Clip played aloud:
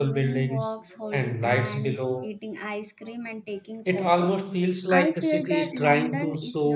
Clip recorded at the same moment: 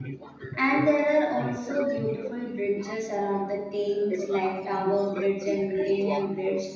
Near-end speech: present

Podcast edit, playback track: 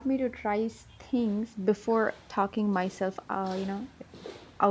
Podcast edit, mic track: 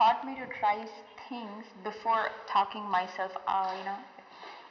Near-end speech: none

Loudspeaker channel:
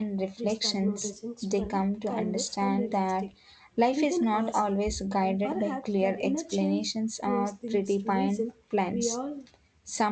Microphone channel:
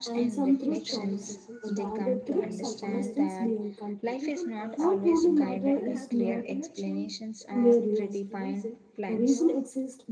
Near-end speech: present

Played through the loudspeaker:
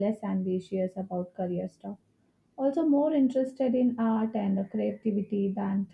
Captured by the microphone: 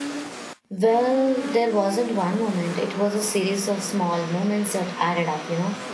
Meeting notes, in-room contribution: present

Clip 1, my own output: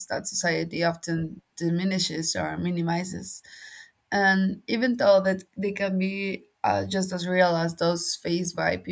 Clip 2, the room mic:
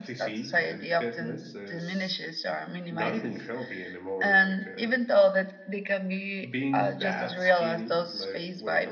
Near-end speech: present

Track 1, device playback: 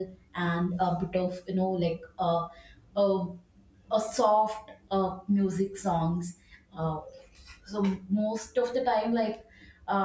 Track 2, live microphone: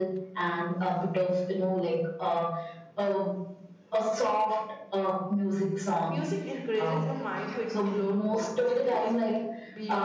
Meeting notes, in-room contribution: present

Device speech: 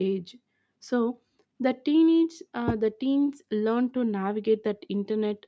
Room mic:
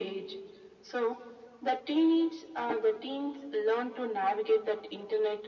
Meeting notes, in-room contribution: none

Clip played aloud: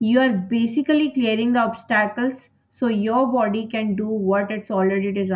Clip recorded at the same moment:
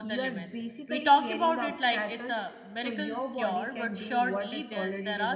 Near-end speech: present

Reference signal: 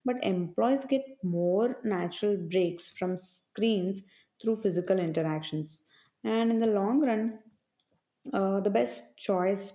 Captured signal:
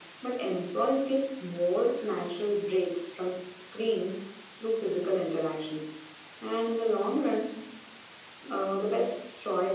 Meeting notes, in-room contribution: none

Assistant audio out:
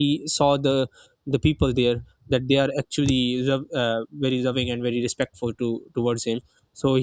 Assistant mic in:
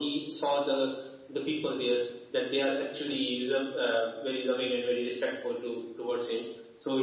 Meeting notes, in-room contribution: none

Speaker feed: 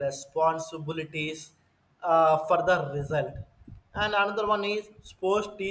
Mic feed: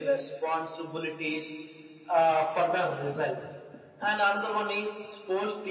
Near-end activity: none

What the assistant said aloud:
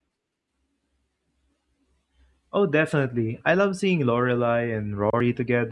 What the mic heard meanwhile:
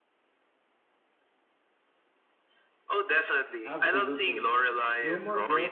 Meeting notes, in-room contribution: present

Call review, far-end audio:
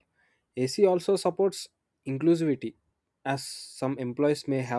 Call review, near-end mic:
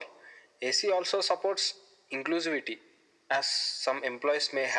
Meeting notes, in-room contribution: none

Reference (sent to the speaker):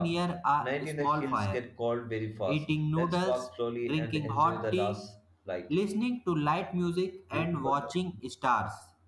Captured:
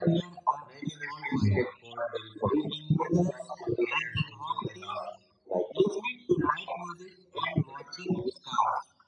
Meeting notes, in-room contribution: none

